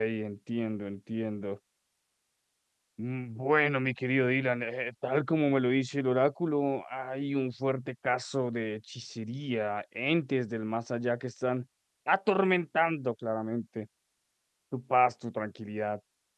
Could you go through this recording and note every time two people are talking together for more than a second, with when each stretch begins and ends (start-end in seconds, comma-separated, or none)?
none